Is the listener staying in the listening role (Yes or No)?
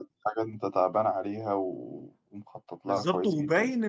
No